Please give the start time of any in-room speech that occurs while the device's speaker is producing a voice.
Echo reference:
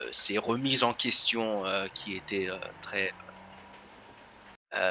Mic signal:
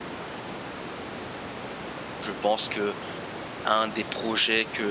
2.2 s

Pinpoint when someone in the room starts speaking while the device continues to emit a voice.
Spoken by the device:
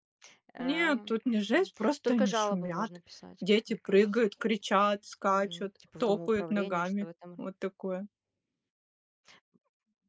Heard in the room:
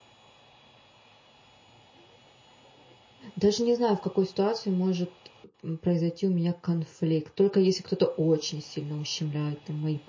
3.3 s

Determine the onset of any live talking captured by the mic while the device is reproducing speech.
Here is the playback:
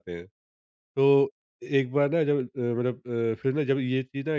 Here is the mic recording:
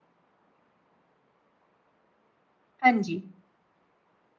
2.8 s

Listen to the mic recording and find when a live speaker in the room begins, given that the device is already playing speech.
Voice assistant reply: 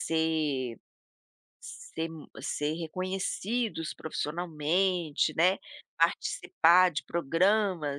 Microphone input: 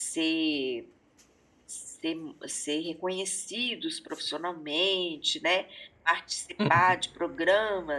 6.6 s

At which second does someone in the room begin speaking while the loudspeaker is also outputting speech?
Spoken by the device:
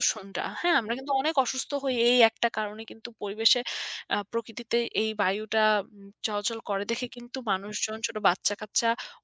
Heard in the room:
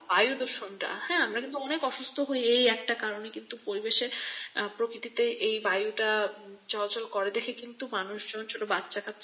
none

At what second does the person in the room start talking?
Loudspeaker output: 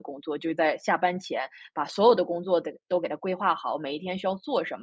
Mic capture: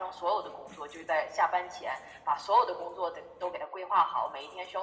none

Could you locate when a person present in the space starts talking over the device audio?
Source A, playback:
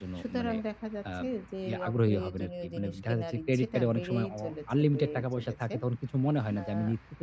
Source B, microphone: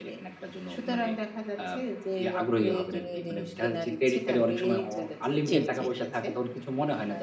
5.5 s

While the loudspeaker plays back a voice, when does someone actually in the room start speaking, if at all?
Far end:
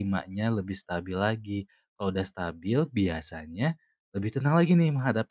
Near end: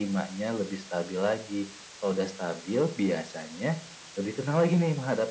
none

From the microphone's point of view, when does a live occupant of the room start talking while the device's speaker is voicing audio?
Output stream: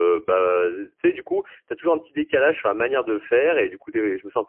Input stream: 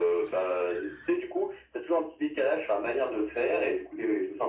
none

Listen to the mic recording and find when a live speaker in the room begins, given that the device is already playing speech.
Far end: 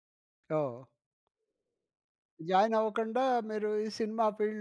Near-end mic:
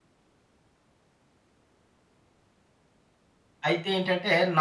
3.7 s

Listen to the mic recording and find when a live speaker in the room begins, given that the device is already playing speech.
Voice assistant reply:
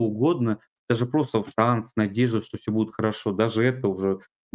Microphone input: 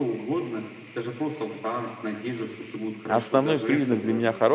3.0 s

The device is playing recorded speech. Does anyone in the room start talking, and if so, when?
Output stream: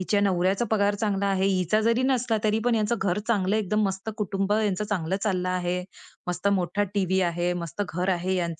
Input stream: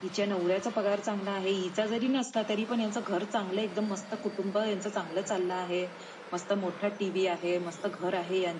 none

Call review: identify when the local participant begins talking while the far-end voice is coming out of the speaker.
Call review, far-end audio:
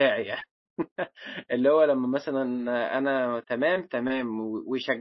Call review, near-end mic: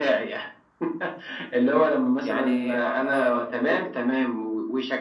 2.2 s

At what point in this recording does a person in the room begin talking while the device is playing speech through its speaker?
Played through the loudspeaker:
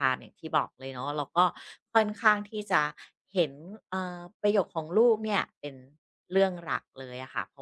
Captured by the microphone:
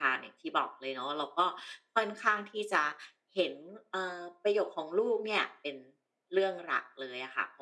none

